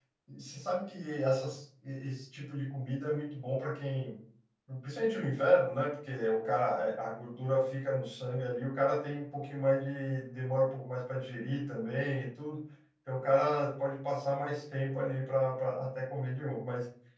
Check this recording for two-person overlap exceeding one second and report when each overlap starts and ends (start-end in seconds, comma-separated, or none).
none